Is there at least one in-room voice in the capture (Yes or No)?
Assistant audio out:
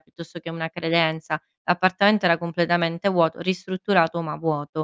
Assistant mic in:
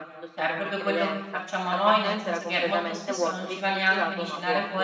Yes